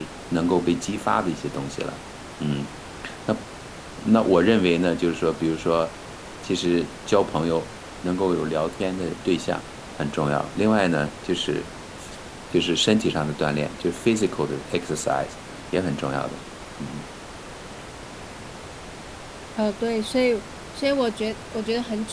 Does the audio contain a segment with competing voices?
No

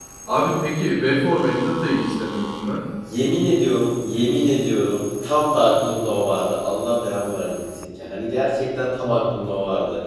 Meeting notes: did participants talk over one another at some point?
No

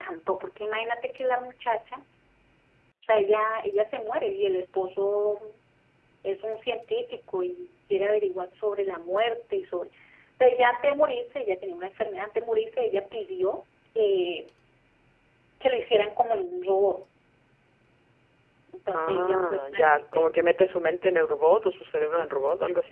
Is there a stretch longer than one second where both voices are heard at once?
Yes, from 18.9 s

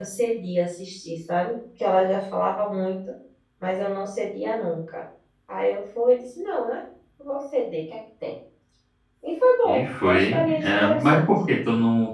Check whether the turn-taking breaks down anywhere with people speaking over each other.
Yes, from 9.6 s

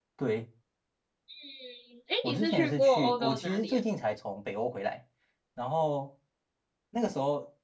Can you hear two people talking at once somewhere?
Yes, from 2.2 s

